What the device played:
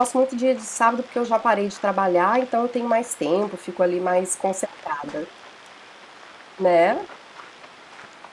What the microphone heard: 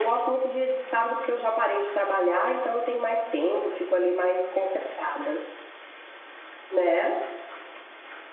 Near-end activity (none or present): none